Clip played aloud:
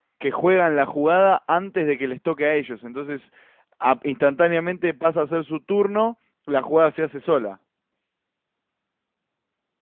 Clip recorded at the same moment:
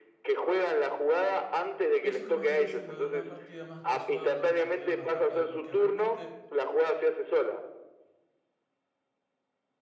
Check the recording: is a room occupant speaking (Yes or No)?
Yes